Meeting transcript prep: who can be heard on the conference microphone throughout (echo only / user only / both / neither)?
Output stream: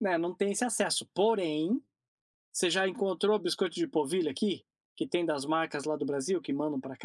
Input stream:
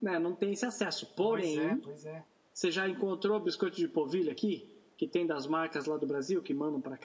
both